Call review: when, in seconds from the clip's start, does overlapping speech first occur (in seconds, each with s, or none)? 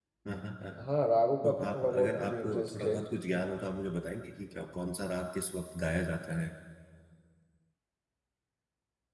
1.4 s